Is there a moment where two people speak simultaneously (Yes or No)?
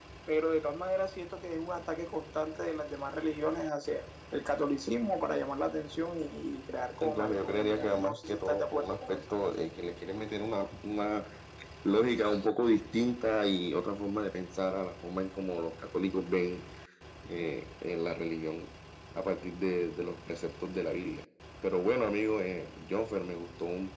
Yes